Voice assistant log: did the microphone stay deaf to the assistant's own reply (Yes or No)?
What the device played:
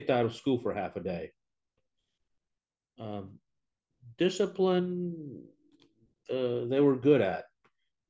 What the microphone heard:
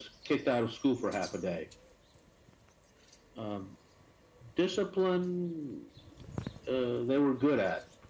No